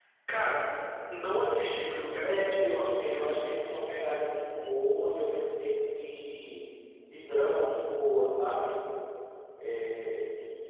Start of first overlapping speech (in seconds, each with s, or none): 2.2 s